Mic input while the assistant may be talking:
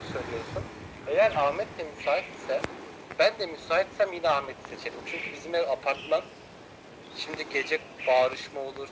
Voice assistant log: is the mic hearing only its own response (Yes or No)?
Yes